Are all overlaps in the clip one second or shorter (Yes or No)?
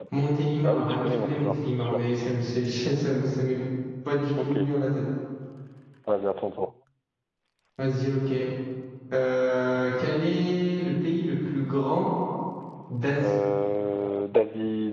No